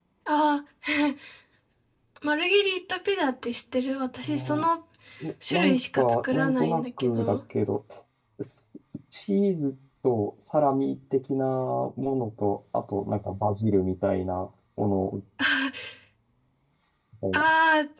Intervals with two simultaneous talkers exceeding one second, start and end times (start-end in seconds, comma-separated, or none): 5.5-7.4